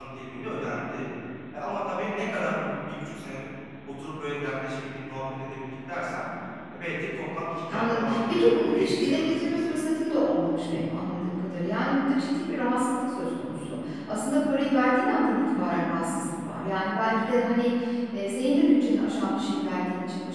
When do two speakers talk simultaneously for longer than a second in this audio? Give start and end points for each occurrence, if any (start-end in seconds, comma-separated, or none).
7.7-9.7